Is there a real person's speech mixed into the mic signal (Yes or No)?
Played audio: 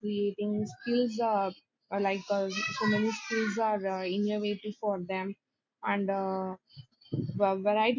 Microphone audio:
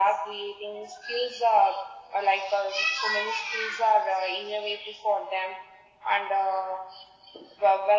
No